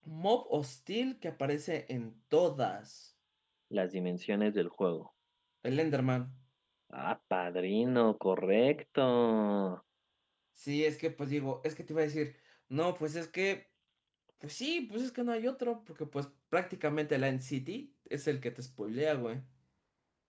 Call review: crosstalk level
none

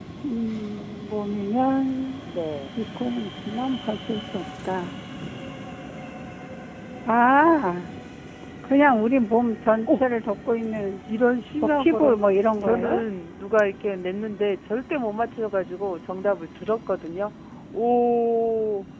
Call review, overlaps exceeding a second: none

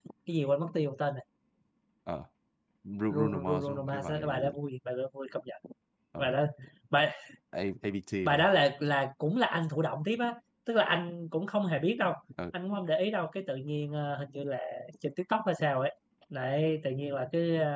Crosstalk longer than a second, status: present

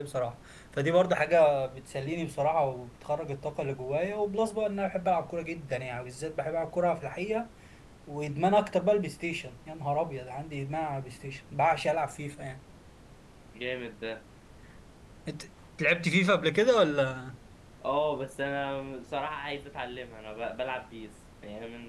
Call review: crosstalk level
none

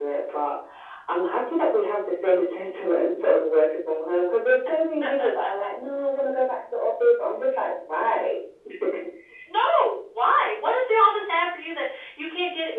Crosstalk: none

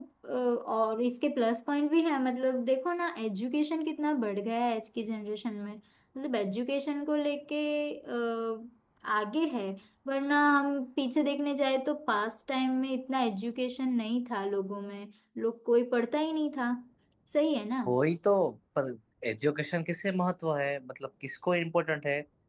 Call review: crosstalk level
none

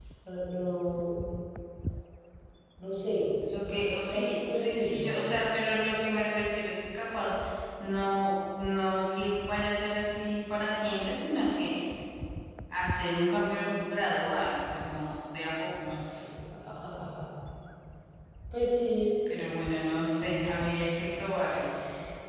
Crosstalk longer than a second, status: present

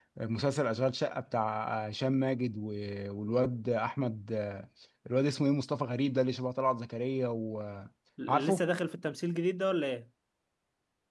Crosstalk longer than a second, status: none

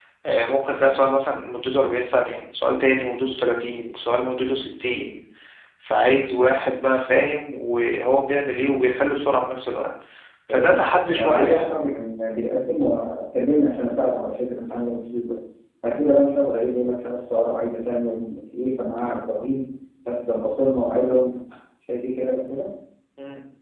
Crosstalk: present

